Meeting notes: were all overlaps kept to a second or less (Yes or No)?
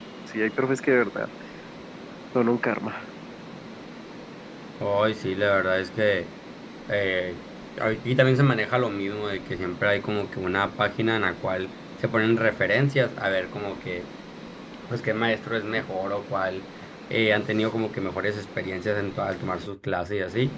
Yes